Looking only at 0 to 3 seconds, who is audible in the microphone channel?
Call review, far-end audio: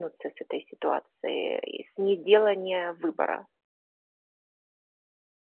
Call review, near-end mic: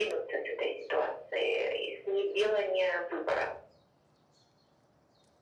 echo only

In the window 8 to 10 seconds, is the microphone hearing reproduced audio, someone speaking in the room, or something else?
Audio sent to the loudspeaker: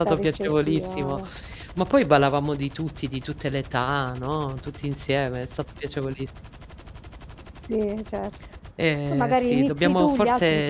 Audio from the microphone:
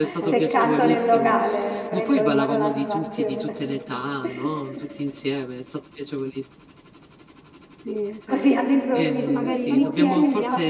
both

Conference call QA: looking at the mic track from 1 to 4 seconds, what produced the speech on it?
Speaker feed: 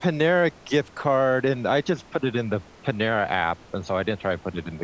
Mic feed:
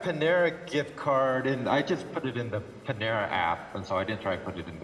echo only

